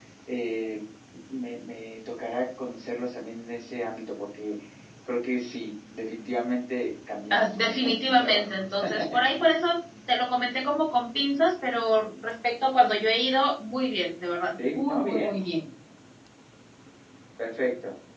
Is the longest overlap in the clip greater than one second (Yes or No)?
Yes